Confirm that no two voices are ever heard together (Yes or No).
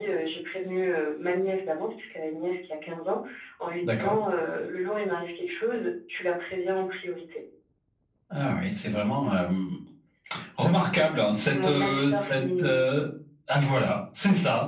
No